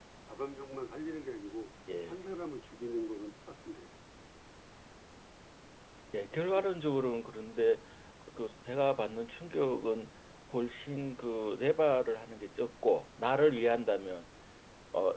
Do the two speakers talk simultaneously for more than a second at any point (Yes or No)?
No